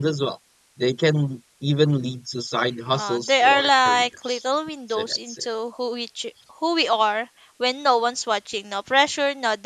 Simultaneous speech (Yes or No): Yes